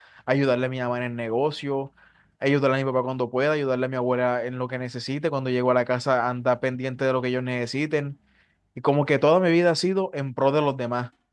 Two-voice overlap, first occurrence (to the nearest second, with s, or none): none